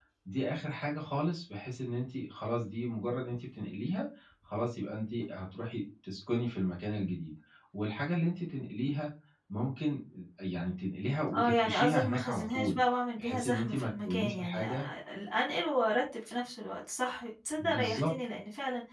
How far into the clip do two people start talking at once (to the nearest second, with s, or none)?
11 s